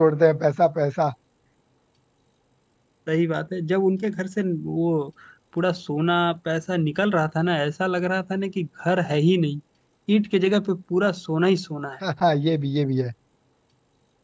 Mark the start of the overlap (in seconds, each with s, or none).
none